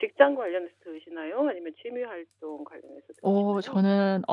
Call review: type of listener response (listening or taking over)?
taking over